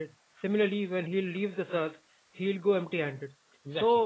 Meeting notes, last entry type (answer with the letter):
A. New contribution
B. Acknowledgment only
B